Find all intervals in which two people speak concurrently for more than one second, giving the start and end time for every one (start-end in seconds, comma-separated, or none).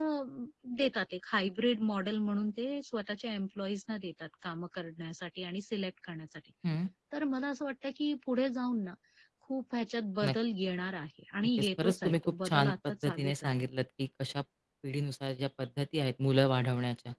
11.6-13.5